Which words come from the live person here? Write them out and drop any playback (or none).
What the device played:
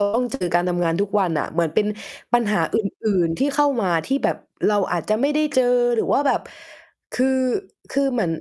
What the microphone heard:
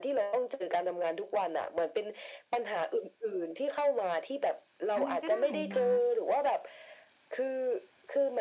อะไรก็ได้มา